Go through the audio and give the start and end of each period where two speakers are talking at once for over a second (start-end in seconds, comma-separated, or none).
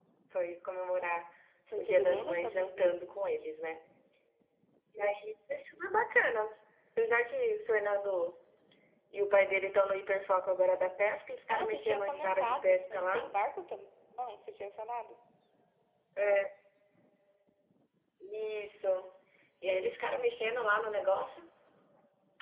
1.8-3.0, 11.5-13.3